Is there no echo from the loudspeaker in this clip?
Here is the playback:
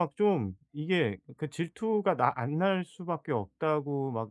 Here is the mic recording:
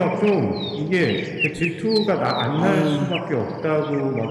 No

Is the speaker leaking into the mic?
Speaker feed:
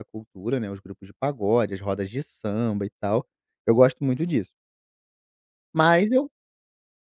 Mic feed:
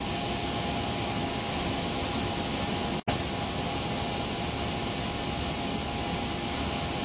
No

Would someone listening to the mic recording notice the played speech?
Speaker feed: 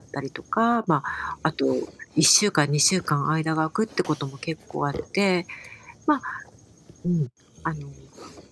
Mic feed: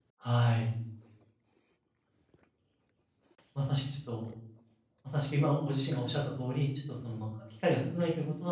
No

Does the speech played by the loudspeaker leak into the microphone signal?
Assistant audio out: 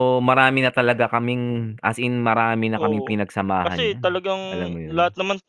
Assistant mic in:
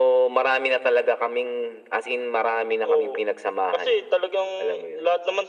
Yes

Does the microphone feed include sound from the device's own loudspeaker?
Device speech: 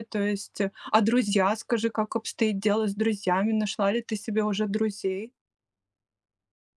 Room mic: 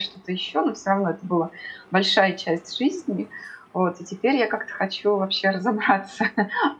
No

